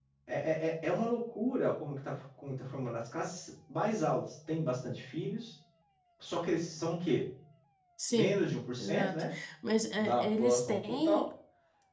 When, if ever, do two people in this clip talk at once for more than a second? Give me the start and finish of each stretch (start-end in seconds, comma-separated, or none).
10.0-11.3